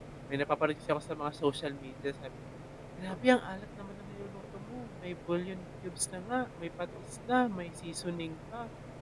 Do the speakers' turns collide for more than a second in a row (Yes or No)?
No